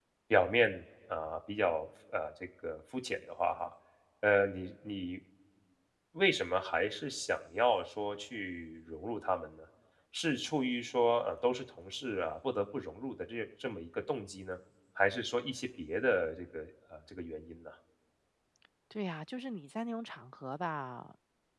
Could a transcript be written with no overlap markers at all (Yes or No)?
Yes